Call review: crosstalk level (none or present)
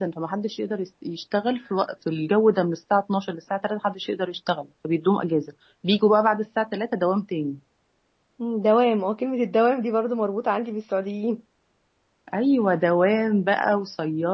none